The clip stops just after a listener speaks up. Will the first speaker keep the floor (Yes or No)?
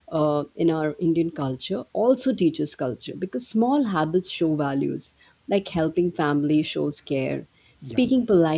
Yes